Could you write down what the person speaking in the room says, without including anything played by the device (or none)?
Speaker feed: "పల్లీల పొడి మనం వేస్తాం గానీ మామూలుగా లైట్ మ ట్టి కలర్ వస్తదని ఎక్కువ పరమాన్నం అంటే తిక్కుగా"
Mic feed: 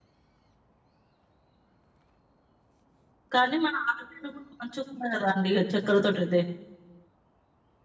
కానీ మన ఆరోగ్యం కూడా మంచి కాదా అండి ఇగా చక్కర తోటి అయితే